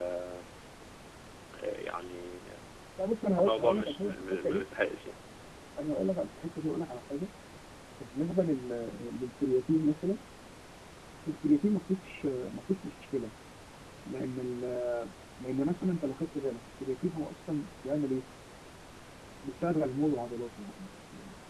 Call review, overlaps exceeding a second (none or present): present